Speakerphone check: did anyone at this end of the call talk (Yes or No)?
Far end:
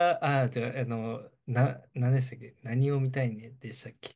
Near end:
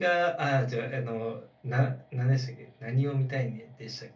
No